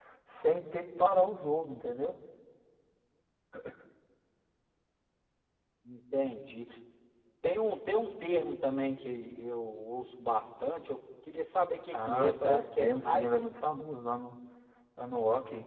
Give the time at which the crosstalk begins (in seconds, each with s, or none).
11.9 s